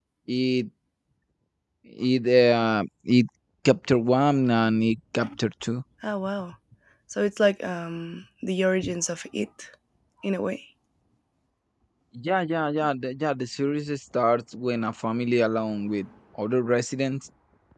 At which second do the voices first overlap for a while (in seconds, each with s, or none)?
none